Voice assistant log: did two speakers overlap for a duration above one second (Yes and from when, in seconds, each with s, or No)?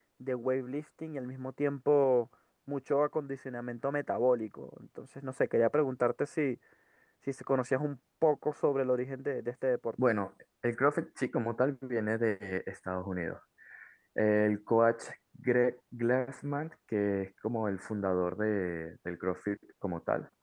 No